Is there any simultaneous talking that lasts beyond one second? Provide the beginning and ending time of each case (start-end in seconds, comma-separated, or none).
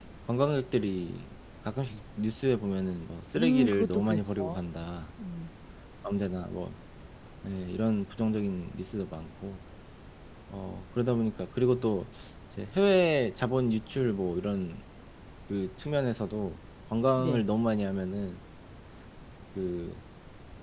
3.4-4.6